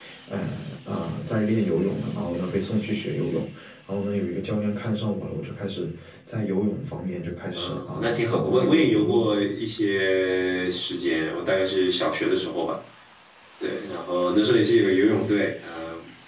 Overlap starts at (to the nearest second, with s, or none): 8 s